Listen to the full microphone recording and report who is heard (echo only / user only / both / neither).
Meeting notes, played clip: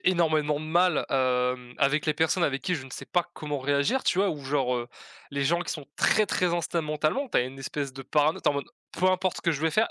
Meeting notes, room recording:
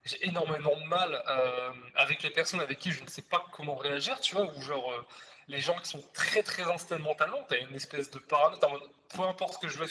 echo only